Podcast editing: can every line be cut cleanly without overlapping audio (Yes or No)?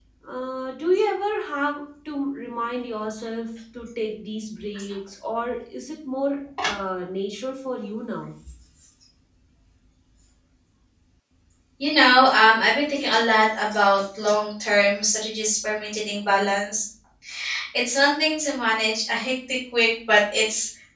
Yes